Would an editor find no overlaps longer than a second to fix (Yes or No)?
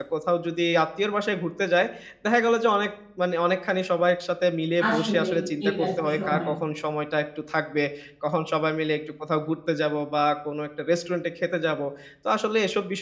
No